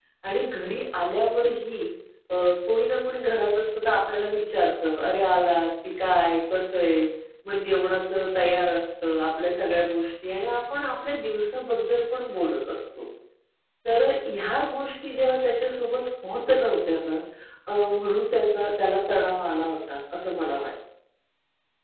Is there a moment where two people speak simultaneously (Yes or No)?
No